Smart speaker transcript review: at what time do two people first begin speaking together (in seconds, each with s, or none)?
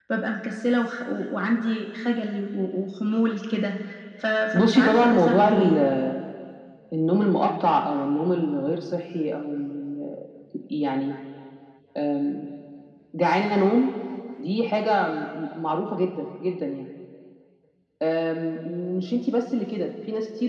4.5 s